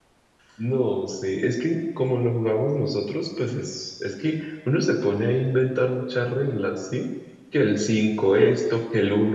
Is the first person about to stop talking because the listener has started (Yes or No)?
No